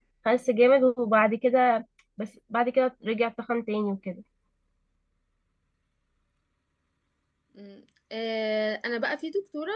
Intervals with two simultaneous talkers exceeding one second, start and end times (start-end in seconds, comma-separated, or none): none